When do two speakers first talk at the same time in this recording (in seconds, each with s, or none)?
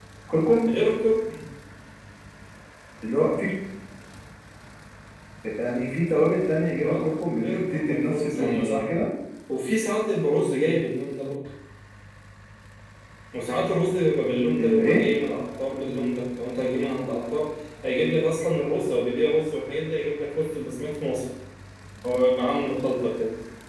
6.8 s